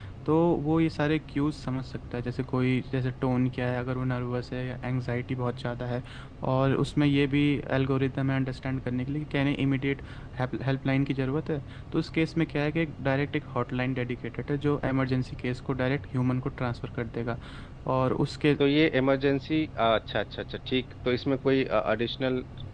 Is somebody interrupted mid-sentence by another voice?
No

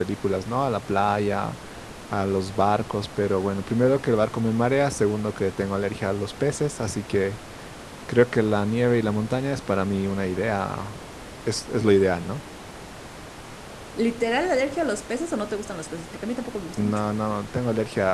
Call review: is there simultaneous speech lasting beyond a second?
No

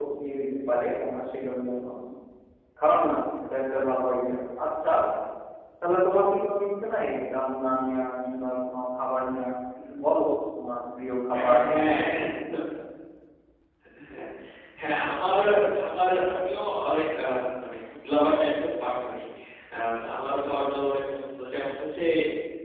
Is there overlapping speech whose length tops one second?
No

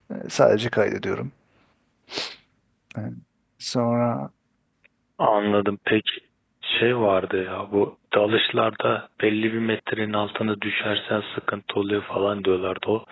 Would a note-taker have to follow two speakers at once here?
No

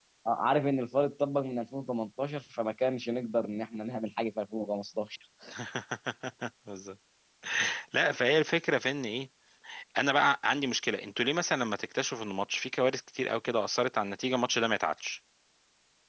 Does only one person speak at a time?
Yes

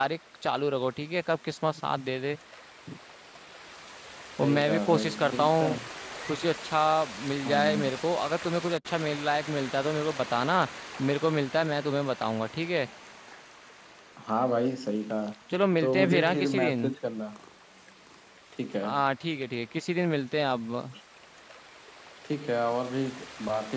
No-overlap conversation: No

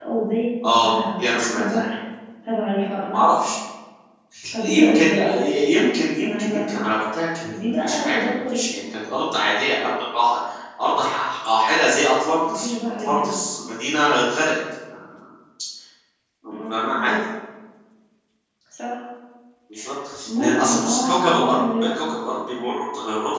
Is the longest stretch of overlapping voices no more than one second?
No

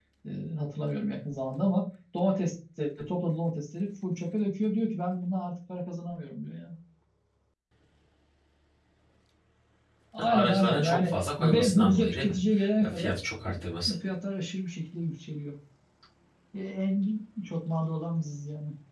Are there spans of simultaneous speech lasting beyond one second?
Yes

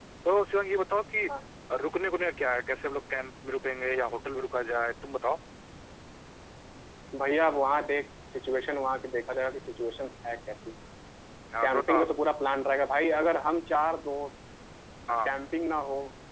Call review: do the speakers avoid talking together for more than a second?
Yes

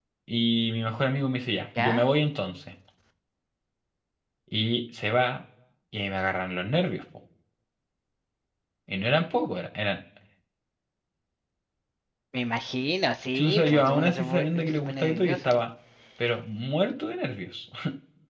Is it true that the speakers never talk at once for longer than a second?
No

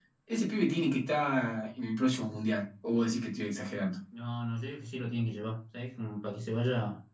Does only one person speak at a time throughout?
Yes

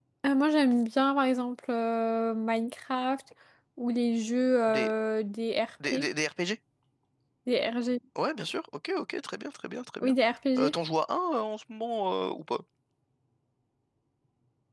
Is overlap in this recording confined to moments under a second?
Yes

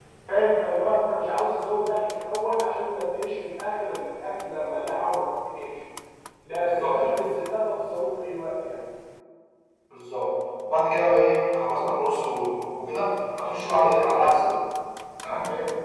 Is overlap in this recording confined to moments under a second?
Yes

